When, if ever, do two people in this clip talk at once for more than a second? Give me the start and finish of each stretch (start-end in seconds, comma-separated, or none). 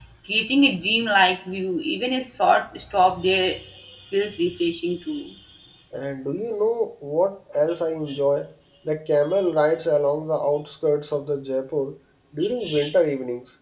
none